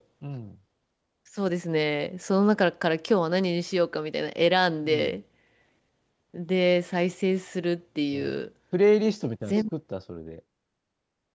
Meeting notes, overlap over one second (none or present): none